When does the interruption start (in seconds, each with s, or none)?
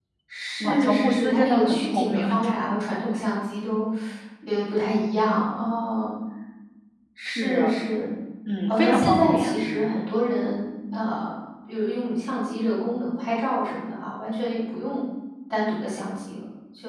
0.6 s